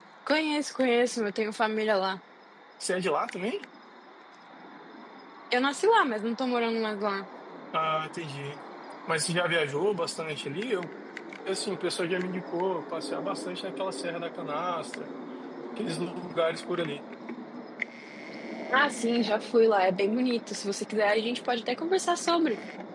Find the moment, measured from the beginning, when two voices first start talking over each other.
none

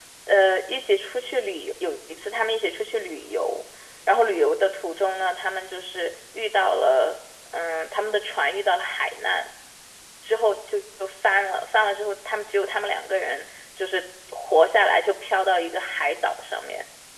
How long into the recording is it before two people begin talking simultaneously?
none

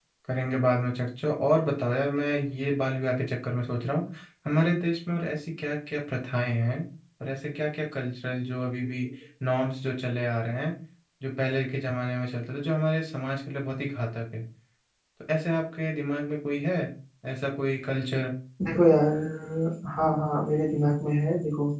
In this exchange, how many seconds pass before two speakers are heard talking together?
none

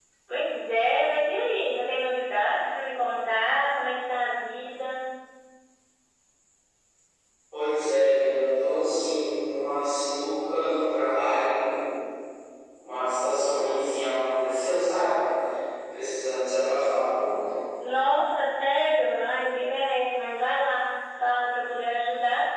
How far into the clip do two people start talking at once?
none

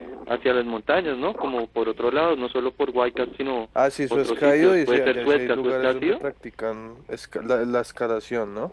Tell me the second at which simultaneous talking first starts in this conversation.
4.1 s

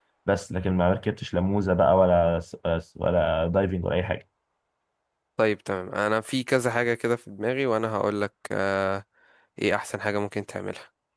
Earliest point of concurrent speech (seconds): none

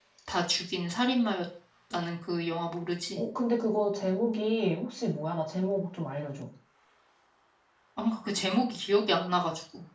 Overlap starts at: none

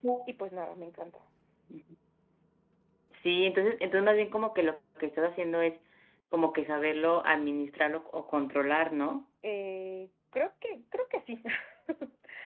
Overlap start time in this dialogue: none

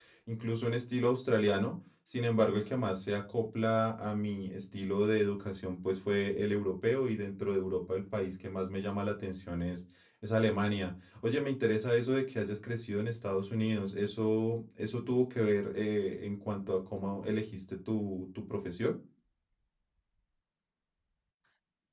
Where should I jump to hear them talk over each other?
none

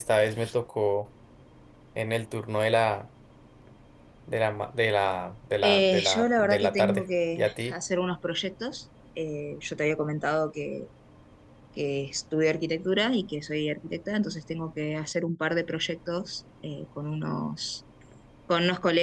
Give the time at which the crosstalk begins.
5.6 s

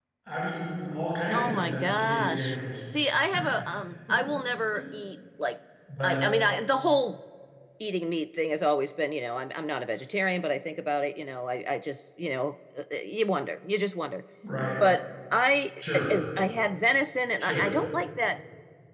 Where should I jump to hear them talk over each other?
1.3 s

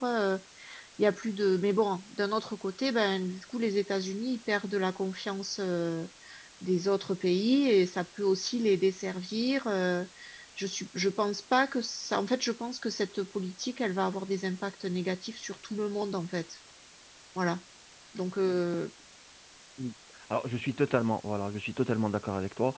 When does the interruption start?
none

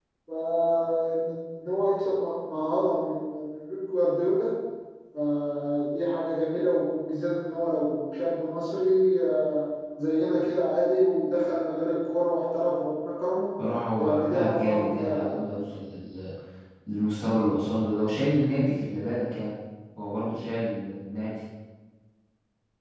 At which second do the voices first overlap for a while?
14.0 s

